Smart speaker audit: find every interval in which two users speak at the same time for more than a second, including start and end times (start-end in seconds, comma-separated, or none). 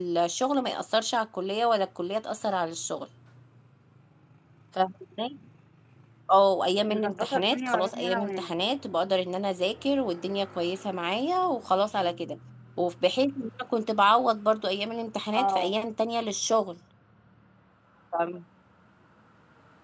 6.8-8.5